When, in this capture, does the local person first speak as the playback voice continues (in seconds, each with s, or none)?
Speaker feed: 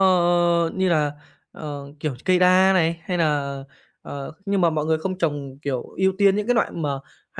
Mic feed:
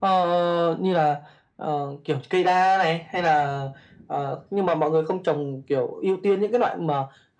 none